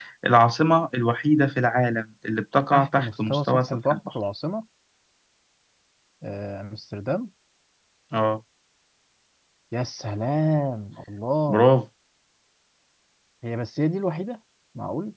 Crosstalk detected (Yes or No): Yes